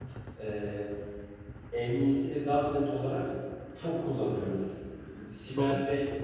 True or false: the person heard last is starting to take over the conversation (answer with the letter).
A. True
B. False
B